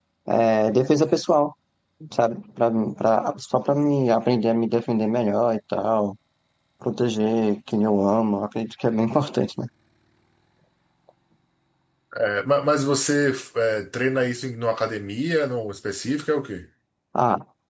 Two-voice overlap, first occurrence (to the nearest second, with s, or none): none